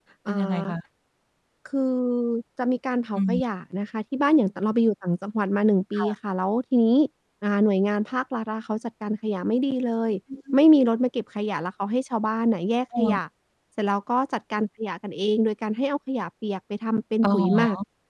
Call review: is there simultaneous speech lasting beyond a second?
No

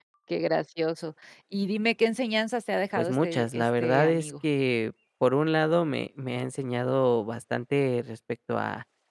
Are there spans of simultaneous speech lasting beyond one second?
Yes, from 3.0 s

